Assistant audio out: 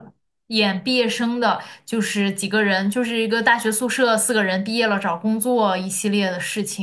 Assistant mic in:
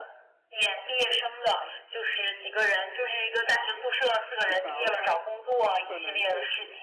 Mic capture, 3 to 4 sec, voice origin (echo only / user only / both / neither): echo only